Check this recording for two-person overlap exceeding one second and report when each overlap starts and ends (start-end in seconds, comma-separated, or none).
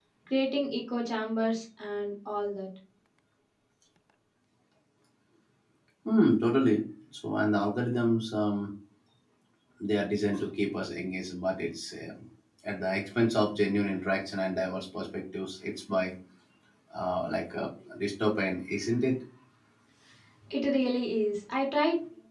none